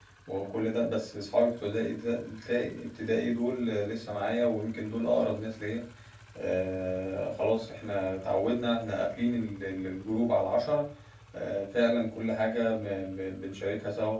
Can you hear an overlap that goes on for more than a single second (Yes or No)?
No